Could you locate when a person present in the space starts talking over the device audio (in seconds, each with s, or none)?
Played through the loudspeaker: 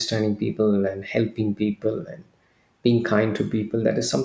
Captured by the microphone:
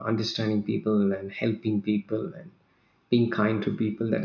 none